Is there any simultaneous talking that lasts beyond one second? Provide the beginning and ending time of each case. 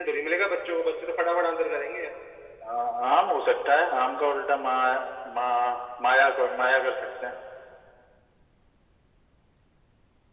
none

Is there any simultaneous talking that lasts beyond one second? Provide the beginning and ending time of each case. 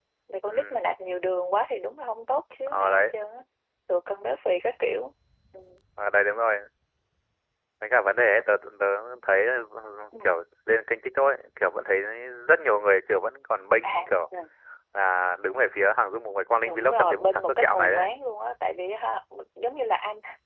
16.6-18.1

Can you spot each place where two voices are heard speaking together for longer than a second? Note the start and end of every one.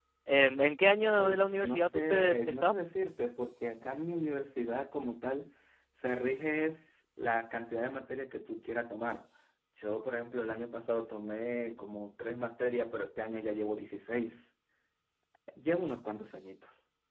1.1-2.7

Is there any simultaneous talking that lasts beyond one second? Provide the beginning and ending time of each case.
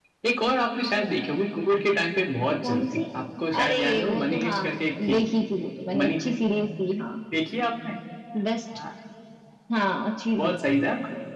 3.6-5.2

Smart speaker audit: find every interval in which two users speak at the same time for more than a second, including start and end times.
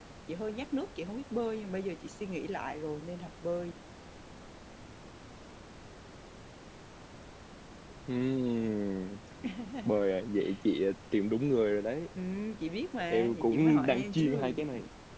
13.1-14.6

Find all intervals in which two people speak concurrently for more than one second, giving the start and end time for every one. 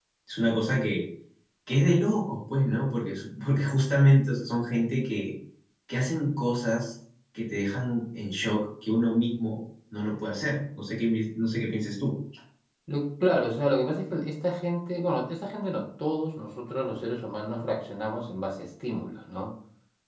none

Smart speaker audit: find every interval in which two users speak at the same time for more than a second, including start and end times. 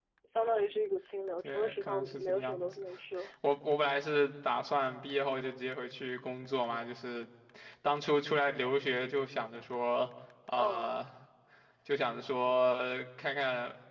1.4-2.7

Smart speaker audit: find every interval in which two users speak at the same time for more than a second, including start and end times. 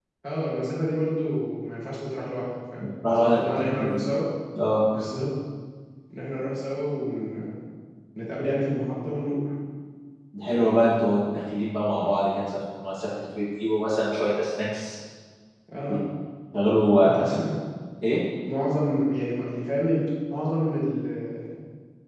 2.8-4.0

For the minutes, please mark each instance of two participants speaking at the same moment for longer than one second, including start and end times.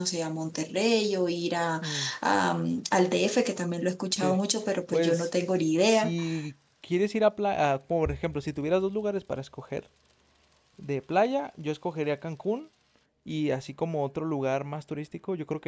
none

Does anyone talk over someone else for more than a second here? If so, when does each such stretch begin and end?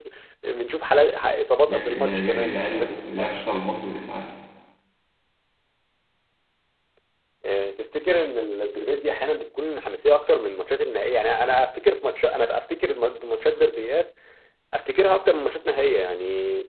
1.7-3.4

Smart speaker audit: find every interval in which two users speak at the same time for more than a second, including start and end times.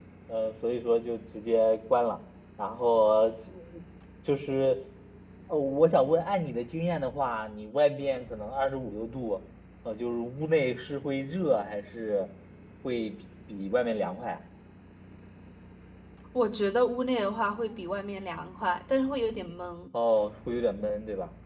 none

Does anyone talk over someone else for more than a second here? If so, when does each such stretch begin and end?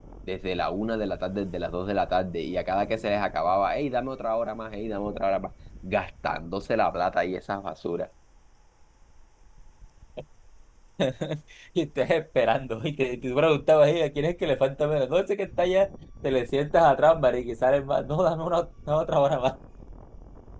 none

